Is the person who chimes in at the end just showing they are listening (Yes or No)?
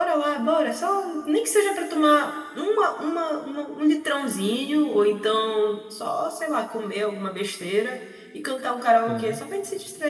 Yes